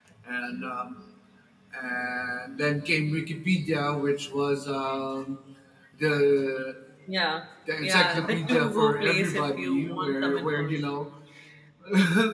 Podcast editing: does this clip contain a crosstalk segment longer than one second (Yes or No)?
Yes